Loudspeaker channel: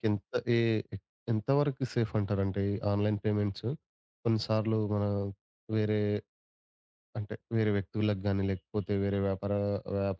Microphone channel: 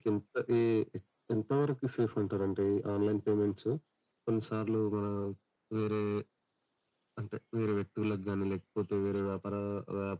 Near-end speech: none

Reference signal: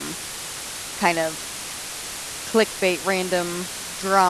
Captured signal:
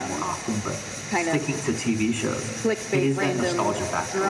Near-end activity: present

